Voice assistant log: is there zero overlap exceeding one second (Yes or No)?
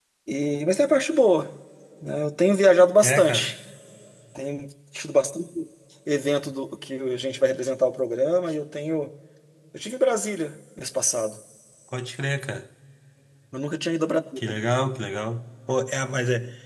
Yes